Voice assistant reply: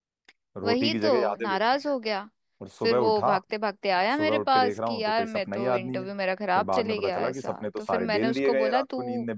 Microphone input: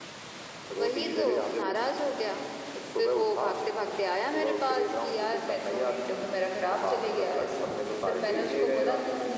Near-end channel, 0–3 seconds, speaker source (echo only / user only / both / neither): echo only